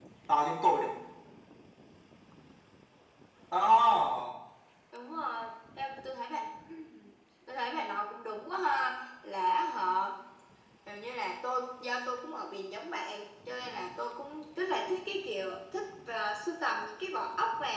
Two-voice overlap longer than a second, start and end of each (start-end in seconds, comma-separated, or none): none